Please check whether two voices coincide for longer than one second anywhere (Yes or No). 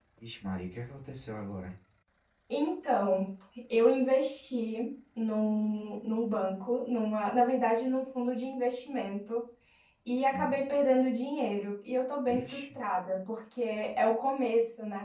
No